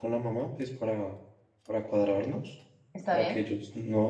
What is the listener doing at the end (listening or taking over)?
listening